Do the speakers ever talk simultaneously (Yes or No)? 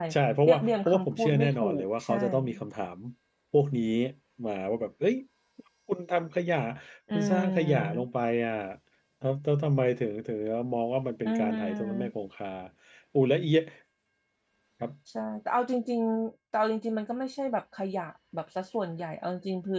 Yes